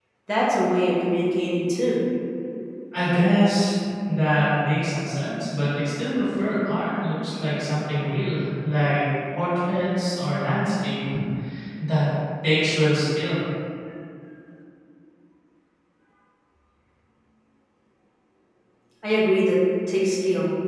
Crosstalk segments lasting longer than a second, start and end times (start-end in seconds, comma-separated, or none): none